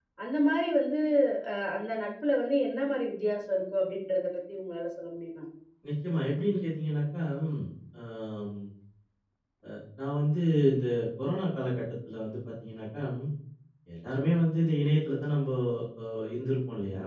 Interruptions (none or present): none